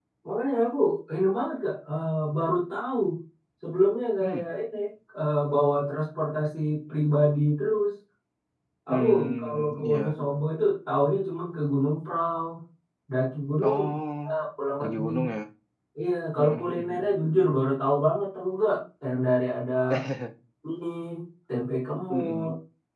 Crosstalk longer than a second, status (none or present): present